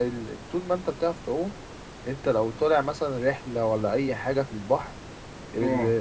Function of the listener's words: listening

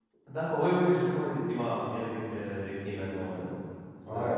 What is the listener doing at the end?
taking over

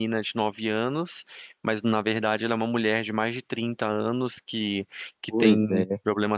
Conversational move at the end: listening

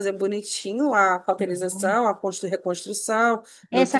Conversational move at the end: taking over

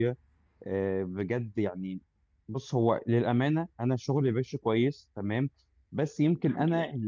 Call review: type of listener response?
listening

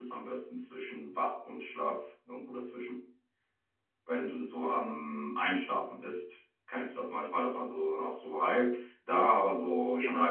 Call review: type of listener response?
listening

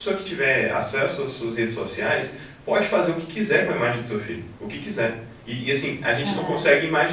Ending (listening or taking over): listening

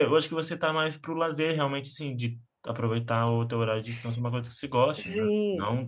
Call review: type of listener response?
taking over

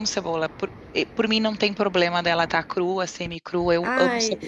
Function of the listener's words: taking over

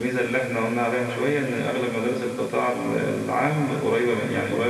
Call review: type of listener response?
listening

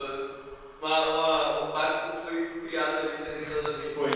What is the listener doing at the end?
taking over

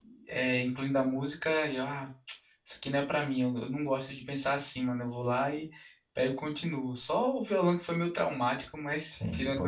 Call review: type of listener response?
taking over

